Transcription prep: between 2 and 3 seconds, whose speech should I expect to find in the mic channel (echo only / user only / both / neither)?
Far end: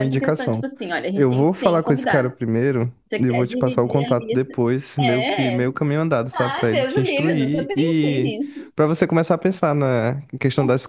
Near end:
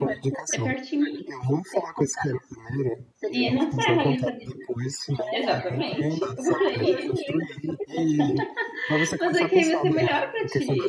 echo only